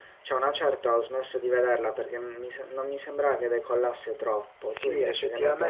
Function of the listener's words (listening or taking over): taking over